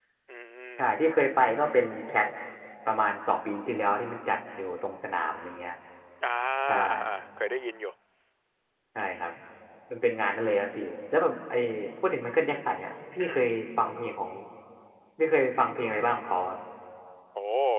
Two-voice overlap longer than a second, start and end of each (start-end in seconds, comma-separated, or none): none